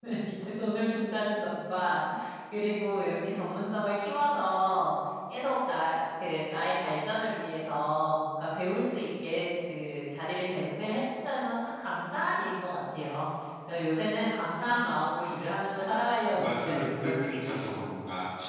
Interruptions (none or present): present